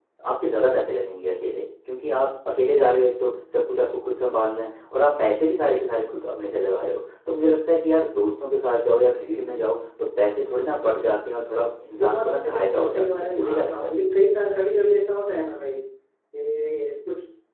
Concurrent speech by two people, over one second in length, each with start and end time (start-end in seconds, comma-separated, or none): 12.0-13.9